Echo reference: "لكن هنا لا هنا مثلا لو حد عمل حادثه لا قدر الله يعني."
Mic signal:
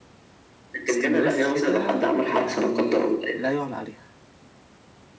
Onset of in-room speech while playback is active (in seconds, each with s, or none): 0.9 s